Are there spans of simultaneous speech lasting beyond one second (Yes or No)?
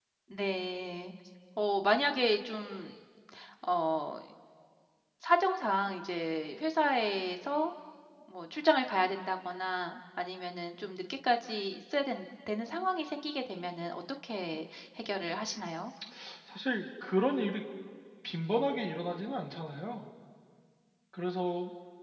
No